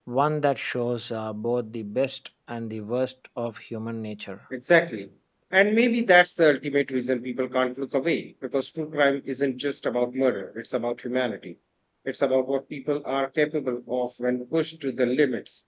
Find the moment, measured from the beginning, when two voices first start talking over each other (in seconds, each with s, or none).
none